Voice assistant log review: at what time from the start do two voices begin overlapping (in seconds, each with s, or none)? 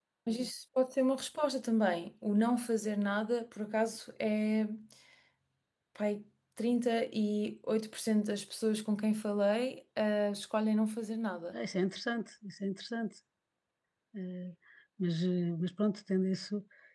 none